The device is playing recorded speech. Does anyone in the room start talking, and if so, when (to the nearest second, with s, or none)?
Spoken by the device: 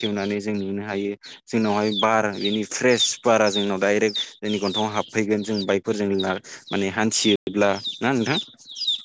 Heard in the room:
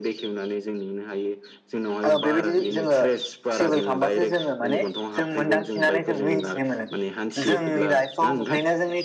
2 s